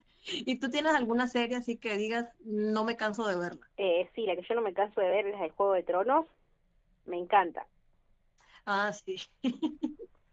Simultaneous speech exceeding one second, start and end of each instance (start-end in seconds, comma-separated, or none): none